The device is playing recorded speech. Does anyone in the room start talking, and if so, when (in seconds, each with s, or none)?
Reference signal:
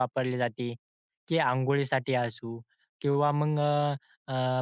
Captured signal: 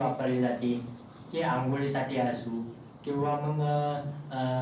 none